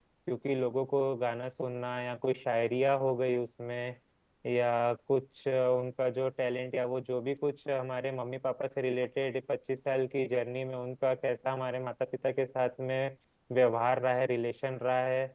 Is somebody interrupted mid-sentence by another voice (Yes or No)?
No